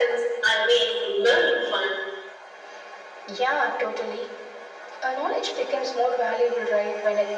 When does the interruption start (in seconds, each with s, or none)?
none